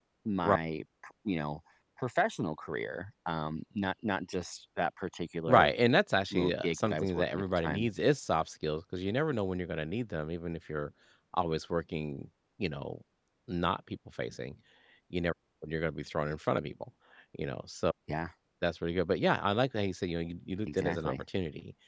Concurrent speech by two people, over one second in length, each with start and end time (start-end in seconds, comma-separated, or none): 6.3-7.9